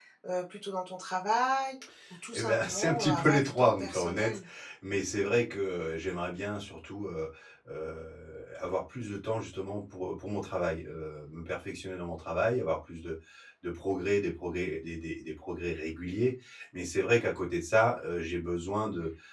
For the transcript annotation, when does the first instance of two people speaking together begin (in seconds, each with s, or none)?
2.3 s